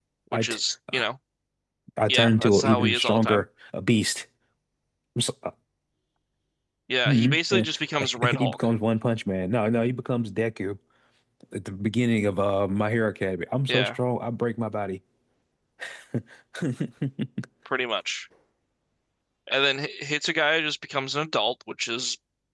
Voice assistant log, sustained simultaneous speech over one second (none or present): present